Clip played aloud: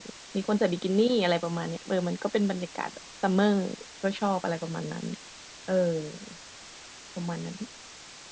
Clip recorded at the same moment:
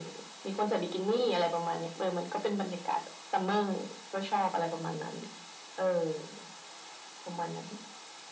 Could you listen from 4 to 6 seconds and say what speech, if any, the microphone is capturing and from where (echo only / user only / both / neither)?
echo only